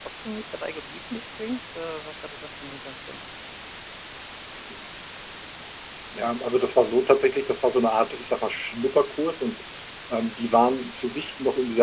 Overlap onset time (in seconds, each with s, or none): none